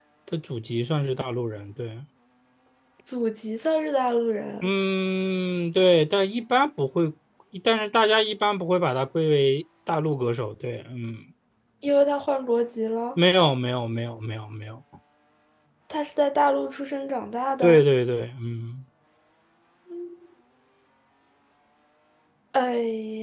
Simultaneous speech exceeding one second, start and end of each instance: none

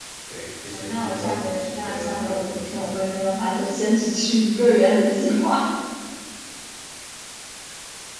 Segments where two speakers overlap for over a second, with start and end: 0.7-3.0

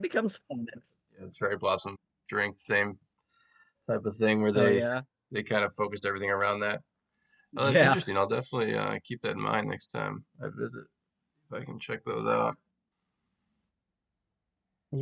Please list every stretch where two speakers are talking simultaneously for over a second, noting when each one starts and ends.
none

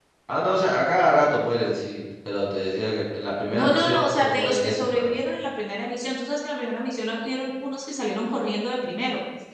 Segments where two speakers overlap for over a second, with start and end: 3.5-5.2

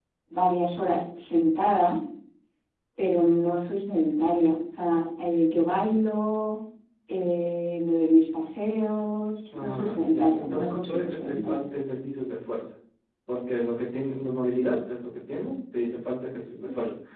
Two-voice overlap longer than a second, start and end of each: 9.6-11.7

